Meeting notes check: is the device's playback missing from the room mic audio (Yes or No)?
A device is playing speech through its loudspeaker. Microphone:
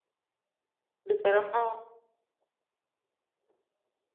Yes